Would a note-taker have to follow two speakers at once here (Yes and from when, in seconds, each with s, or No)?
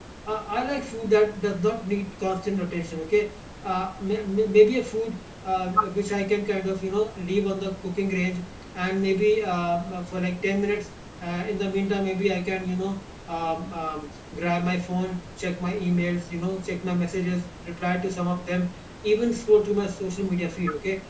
No